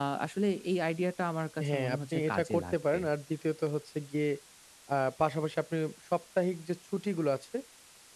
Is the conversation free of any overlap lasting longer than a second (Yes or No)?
No